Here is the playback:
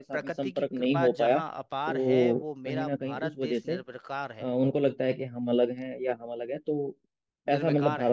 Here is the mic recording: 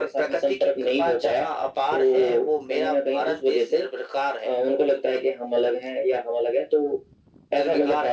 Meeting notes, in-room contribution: none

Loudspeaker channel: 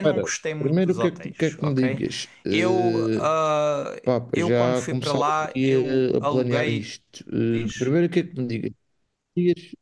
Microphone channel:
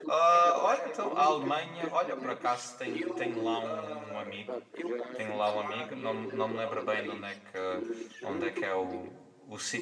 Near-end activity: present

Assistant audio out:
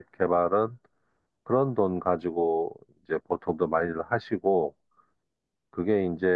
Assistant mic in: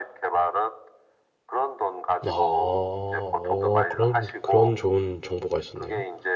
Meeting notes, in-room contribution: present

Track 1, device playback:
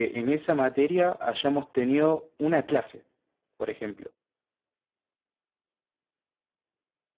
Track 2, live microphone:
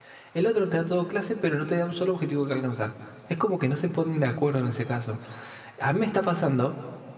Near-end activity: present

